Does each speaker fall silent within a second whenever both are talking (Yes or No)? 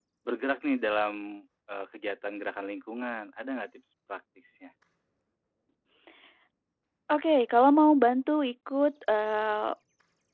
Yes